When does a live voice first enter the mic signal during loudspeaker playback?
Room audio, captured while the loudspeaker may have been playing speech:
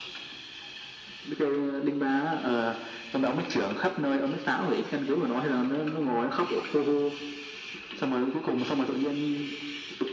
none

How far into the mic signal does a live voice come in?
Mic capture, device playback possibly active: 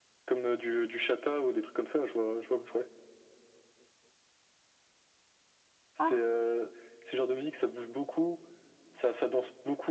6.0 s

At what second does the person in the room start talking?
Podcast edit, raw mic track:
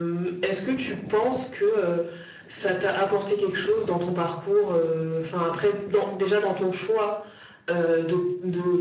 none

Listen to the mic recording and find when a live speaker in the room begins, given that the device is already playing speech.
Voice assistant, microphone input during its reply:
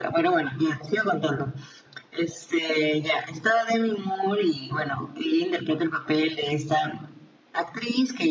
none

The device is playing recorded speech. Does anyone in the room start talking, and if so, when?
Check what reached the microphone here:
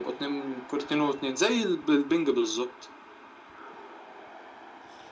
none

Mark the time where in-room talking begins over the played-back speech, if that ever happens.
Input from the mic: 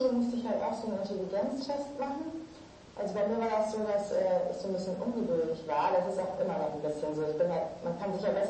none

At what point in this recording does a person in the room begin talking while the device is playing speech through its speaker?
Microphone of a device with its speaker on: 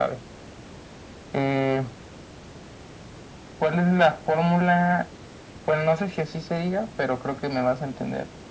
none

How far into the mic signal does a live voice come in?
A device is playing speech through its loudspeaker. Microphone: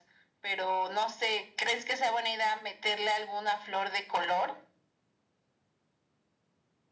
none

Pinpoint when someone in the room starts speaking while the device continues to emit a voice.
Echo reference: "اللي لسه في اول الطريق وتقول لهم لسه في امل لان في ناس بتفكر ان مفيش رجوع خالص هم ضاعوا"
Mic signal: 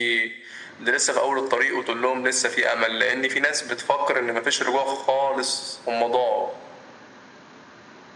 none

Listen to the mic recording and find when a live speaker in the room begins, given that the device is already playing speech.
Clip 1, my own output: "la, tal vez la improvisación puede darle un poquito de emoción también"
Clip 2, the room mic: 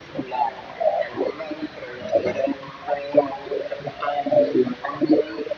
2.0 s

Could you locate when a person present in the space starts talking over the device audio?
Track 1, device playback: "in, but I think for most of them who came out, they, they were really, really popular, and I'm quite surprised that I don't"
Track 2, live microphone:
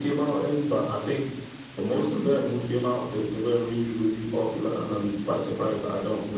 none

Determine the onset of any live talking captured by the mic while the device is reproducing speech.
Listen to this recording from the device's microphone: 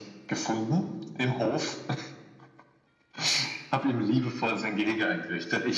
none

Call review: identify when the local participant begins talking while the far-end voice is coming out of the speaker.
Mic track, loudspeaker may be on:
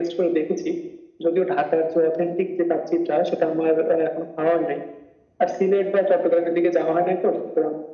none

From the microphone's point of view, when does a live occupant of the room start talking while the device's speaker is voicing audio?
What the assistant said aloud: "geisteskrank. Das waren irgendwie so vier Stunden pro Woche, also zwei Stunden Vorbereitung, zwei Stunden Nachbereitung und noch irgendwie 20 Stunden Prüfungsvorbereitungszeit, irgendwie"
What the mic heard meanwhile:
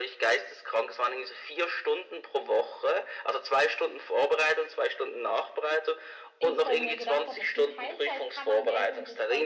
6.4 s

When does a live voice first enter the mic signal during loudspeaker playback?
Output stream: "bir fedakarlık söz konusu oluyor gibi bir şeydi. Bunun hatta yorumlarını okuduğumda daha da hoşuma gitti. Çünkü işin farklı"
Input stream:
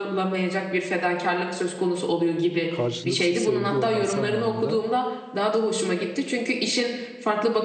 2.7 s

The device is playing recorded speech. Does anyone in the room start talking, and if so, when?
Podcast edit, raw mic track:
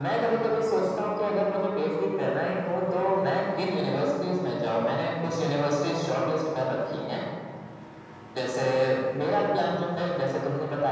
none

